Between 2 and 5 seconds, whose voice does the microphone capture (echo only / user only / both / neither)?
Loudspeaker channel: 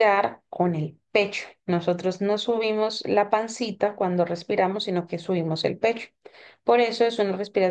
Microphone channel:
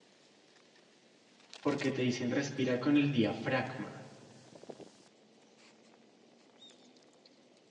user only